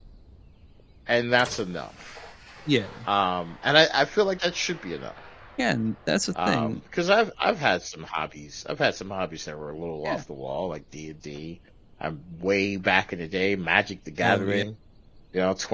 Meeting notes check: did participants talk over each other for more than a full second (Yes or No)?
No